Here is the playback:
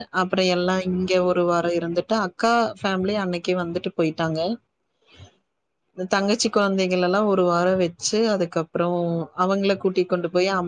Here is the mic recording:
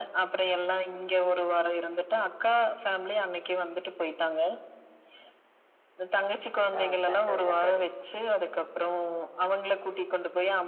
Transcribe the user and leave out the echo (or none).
ஆ சந்தோஷம் தோழி